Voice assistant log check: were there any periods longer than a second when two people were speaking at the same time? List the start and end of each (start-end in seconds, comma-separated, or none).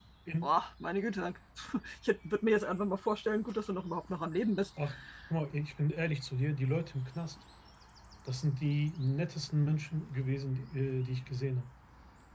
none